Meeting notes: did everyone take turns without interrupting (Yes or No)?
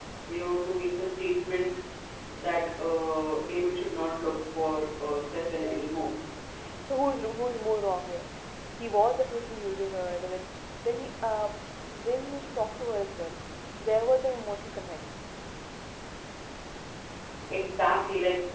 Yes